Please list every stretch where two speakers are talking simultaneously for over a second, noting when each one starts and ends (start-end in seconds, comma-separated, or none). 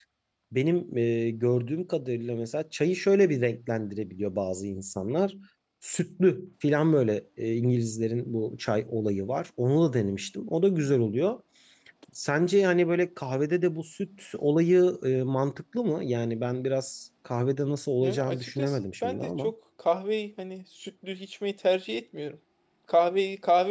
18.0-19.5